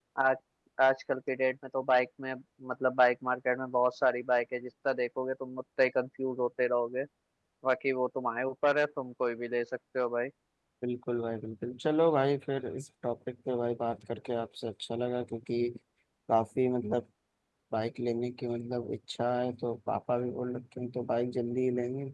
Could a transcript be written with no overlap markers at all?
Yes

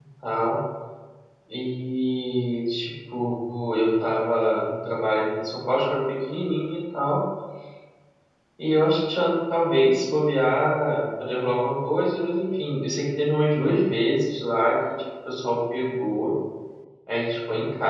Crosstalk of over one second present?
No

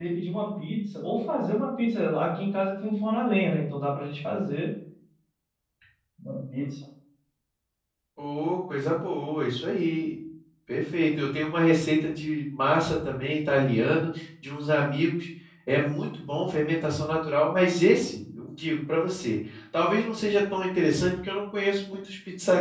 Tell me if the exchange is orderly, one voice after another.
Yes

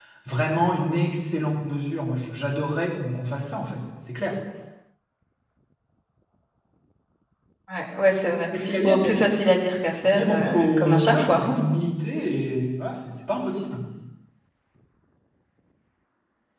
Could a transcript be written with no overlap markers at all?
No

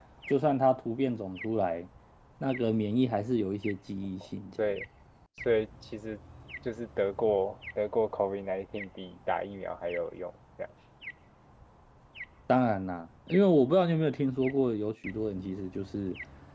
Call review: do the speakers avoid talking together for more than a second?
Yes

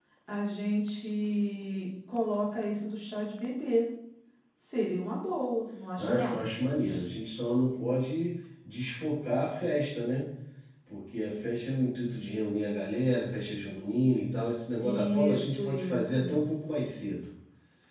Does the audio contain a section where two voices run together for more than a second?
Yes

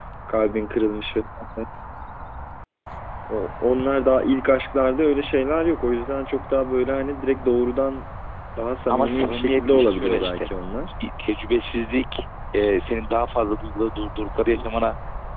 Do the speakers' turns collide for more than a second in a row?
Yes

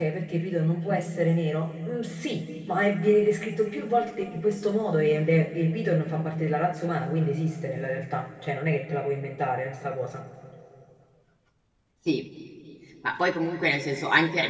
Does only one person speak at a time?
Yes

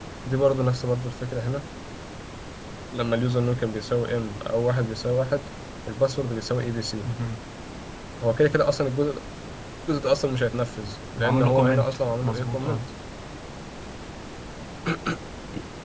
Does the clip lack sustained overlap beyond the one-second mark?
No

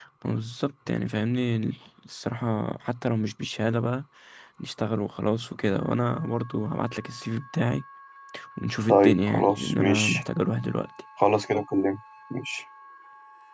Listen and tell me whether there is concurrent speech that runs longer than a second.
Yes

